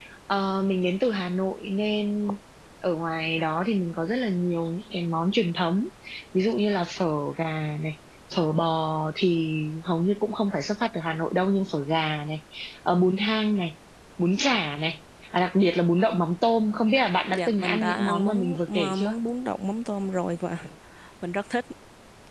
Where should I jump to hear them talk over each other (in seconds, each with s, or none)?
17.3 s